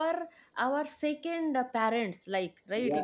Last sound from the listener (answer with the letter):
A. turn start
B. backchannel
B